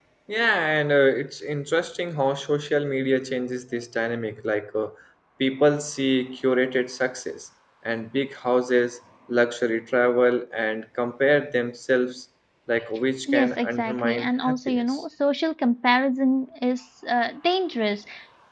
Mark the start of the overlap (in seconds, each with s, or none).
13.3 s